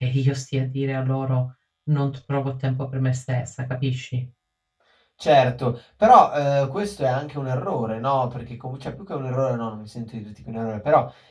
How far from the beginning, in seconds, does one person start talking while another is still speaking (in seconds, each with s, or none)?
none